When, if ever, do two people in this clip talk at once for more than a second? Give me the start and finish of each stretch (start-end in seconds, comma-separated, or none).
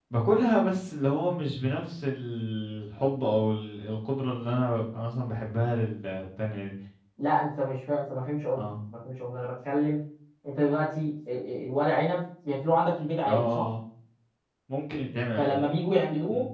none